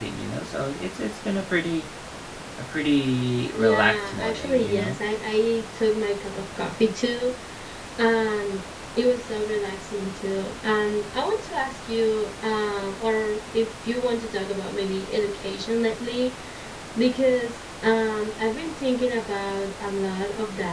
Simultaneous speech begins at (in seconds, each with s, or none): 3.5 s